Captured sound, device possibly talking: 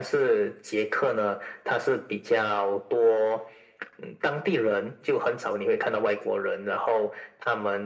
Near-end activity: none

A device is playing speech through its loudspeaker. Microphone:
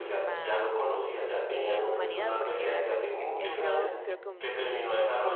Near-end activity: present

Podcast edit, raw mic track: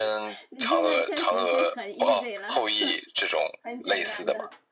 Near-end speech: present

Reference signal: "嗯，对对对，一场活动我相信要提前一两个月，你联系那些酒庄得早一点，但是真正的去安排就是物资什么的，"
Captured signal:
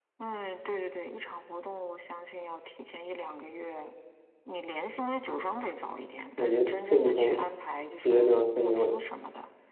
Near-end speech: present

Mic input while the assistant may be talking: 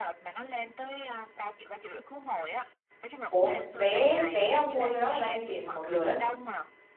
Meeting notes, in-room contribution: present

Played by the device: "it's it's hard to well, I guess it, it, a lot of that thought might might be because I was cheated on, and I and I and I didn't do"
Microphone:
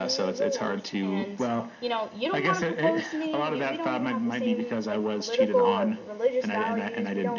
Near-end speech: present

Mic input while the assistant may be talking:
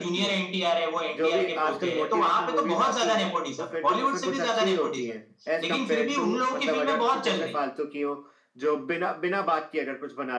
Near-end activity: none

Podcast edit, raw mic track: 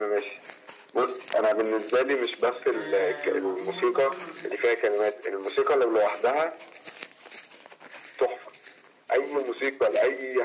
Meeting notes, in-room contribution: present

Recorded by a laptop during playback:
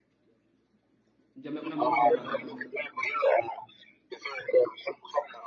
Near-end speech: present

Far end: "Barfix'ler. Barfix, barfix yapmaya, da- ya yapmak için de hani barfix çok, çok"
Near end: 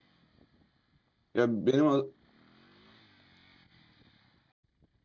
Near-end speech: present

